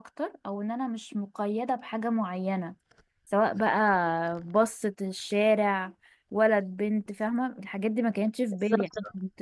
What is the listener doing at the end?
listening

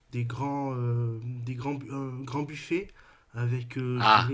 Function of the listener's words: listening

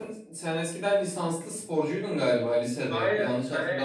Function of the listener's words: taking over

